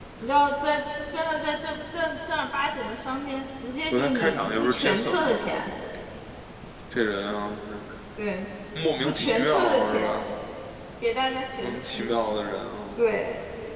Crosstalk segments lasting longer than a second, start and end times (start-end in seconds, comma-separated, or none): 3.9-5.4, 9.0-10.2